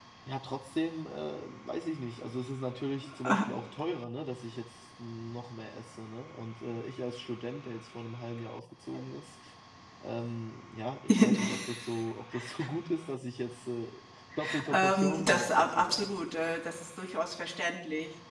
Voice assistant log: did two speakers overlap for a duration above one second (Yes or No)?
Yes